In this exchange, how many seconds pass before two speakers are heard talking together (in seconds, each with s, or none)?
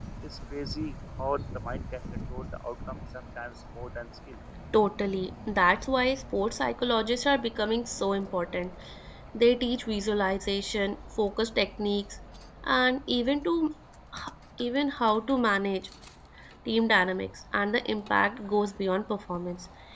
none